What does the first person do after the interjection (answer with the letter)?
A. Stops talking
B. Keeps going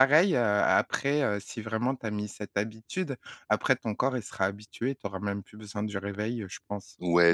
A